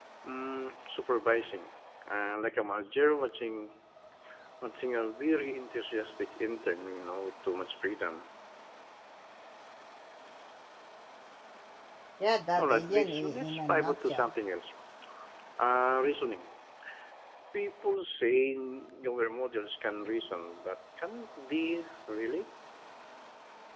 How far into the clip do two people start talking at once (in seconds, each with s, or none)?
12.6 s